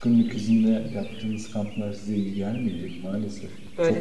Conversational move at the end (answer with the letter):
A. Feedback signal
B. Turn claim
B